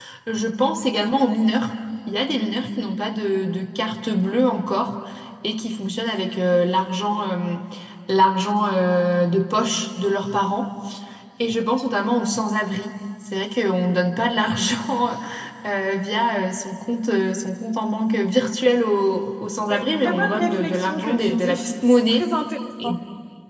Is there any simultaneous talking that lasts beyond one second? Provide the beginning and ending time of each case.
19.7-22.3

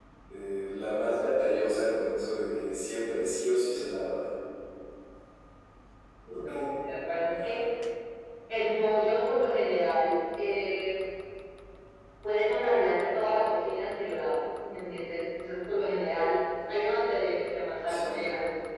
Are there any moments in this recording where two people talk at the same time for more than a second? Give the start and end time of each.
none

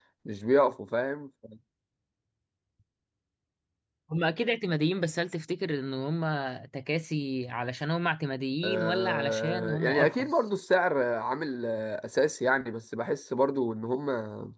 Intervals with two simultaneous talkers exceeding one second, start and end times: 8.6-10.4

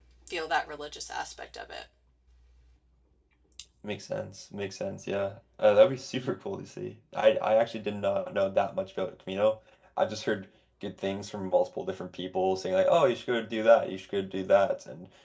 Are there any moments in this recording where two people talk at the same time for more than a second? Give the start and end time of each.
none

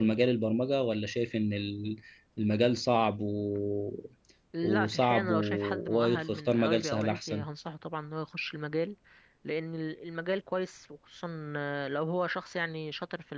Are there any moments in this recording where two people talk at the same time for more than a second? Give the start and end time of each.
4.6-7.4

